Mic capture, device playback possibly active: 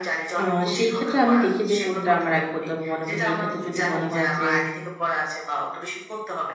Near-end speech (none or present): present